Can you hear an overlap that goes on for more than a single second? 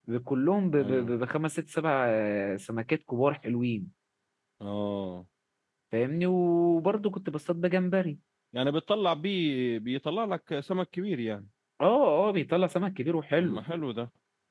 No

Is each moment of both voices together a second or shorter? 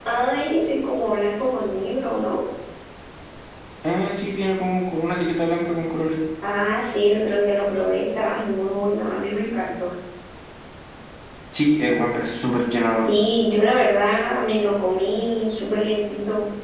Yes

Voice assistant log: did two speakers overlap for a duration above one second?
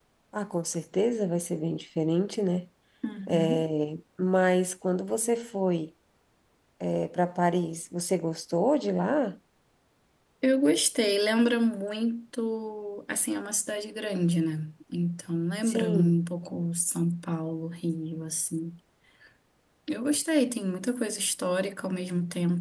No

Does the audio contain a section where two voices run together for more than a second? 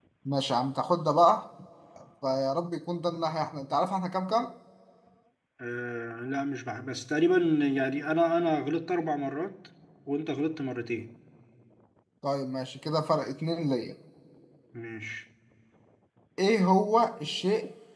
No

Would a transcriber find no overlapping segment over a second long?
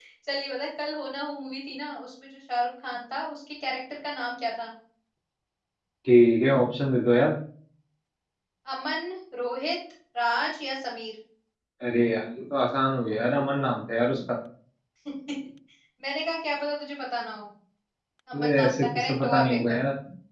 No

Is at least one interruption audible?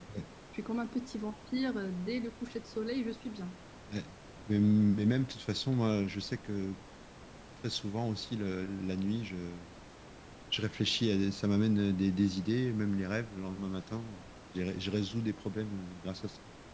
No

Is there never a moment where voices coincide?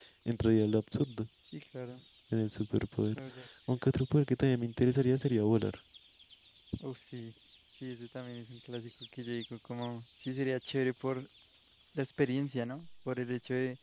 Yes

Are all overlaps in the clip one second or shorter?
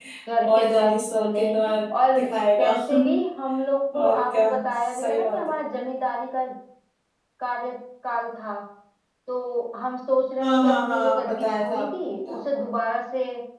No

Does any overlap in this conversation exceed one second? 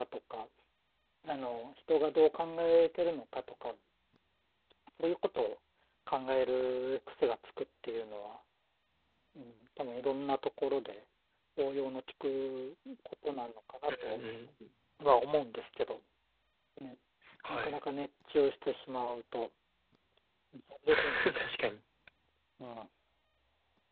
No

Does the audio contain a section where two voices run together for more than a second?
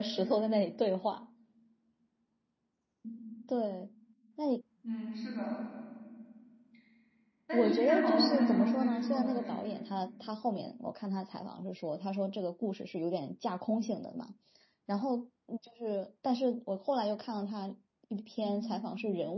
Yes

